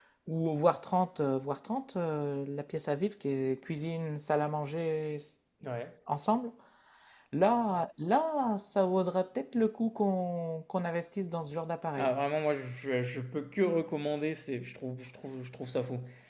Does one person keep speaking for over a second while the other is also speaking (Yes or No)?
No